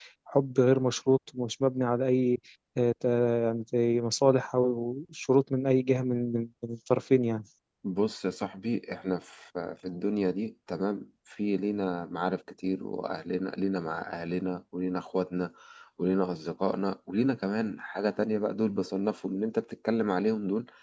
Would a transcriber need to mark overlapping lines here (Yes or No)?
No